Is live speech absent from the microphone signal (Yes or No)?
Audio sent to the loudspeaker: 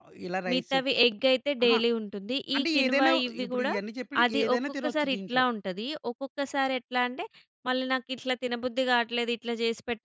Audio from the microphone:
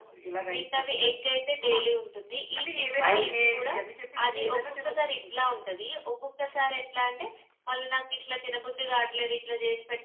No